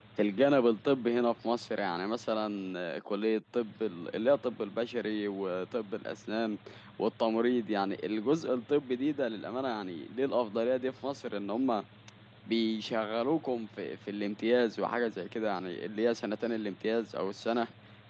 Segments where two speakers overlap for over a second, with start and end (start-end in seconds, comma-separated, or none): none